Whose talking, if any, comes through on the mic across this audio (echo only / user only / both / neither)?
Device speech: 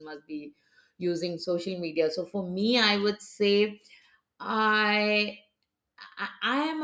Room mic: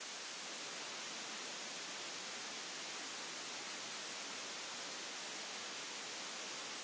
neither